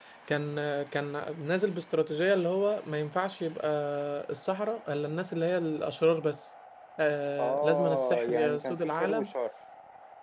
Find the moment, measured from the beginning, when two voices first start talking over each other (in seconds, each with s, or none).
7.4 s